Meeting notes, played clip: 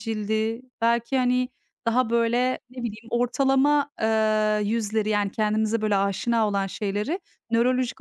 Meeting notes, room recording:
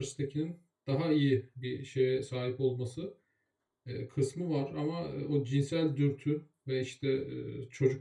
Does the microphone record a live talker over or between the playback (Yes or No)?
Yes